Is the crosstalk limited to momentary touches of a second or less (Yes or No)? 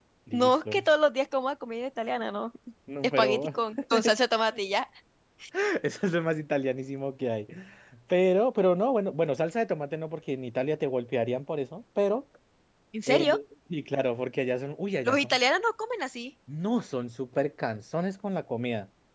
Yes